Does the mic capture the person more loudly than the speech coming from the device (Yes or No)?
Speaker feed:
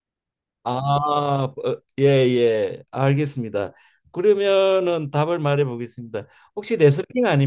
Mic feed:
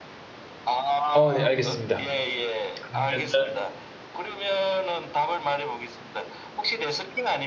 Yes